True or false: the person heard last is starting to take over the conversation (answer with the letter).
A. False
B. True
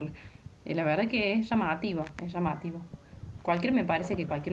A